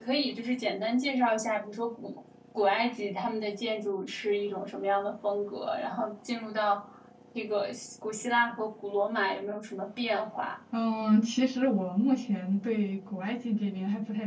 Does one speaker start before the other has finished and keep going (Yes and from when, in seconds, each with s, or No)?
No